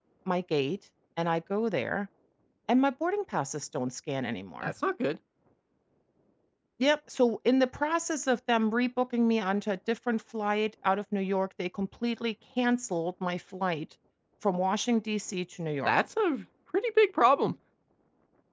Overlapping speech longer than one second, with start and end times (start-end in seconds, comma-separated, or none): none